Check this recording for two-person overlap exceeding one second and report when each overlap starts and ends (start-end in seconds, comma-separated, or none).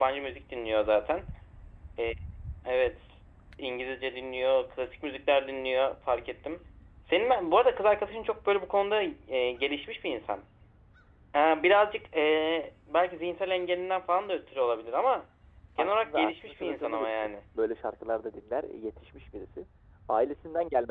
15.8-17.3